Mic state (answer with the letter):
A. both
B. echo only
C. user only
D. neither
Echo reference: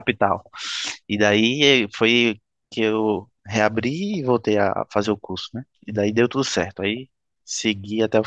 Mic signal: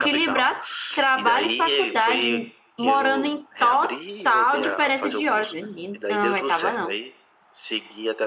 A